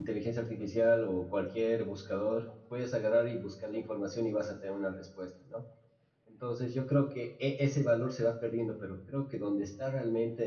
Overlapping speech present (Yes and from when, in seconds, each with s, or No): No